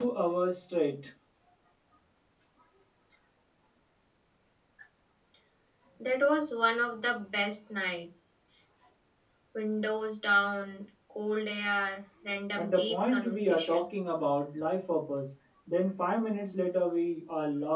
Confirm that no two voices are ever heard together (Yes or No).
No